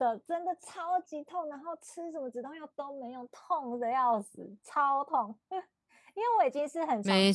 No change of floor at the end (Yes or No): Yes